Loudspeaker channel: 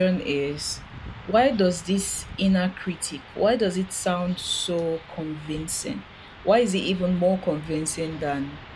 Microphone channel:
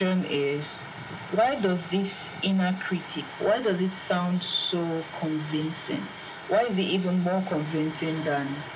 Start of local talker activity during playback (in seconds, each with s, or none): none